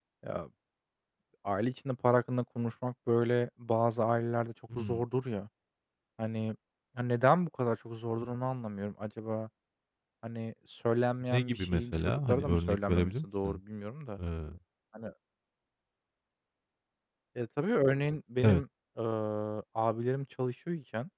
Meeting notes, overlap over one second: present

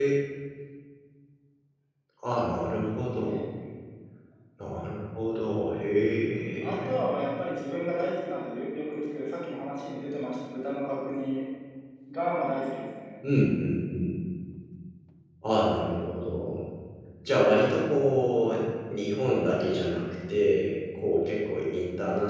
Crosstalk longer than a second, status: none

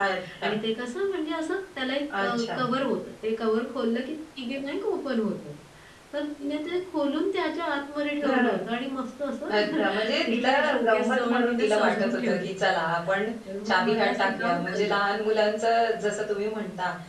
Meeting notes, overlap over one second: present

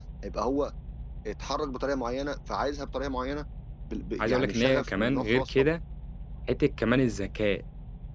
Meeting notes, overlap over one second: present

